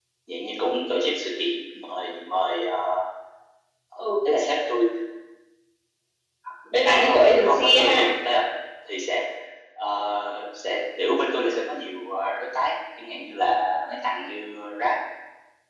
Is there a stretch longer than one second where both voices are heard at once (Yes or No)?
Yes